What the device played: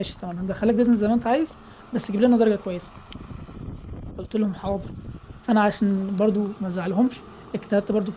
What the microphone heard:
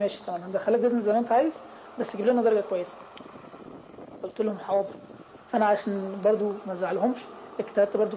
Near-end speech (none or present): none